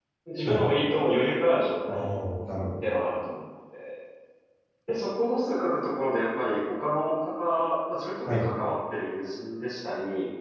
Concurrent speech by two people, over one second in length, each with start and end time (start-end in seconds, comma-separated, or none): none